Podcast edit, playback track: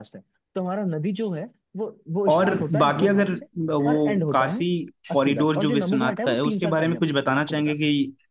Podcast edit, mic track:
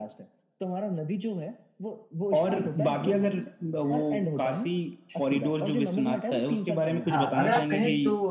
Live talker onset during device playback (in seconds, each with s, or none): 7.0 s